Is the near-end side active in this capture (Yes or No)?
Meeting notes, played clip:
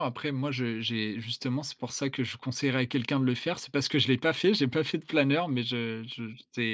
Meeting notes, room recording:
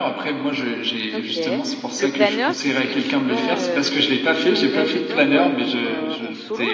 Yes